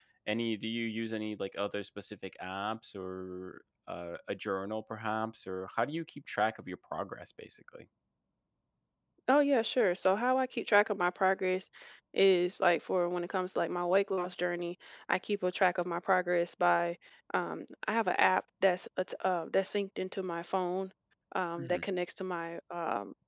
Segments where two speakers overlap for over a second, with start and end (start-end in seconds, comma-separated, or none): none